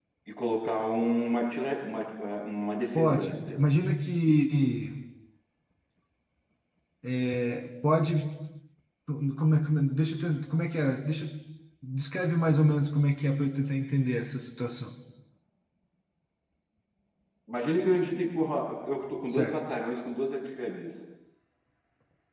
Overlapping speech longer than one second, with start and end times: none

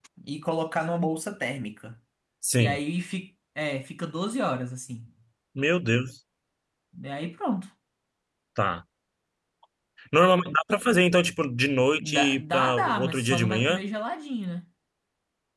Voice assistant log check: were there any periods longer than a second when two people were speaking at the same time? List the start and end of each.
12.0-13.8

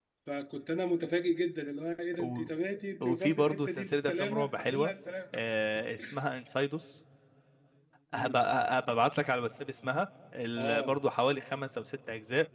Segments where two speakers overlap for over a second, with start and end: 3.0-4.9

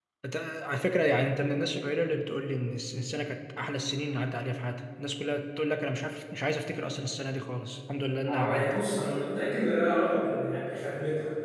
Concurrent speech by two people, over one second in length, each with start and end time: none

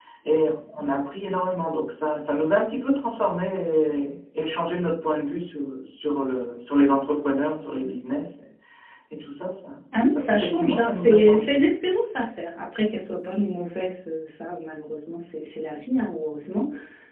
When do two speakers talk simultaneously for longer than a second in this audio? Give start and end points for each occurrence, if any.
10.1-11.5

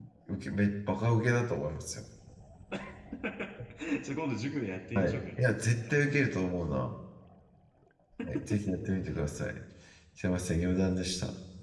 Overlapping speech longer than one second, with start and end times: none

